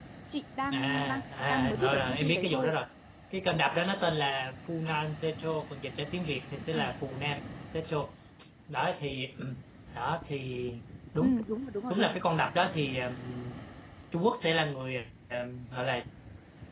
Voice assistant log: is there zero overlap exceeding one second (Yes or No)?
No